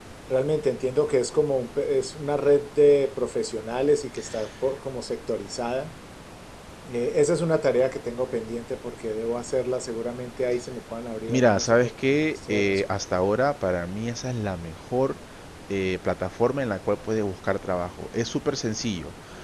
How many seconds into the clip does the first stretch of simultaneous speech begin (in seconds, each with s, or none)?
11.3 s